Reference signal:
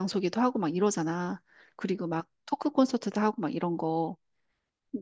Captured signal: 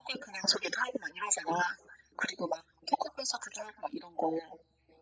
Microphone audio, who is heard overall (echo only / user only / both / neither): echo only